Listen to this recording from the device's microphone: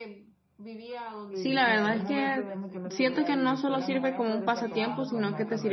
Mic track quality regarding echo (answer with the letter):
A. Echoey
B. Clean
A